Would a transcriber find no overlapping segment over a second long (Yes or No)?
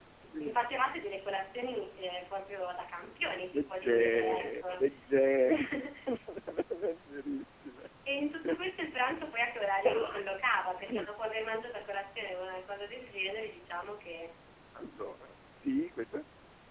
No